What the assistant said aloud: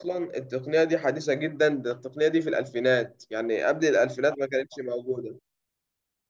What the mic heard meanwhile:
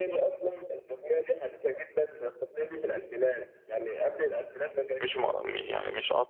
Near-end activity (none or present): present